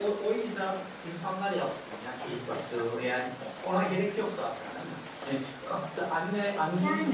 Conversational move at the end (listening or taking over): listening